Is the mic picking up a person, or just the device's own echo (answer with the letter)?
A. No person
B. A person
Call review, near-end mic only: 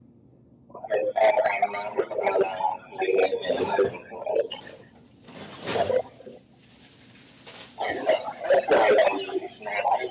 A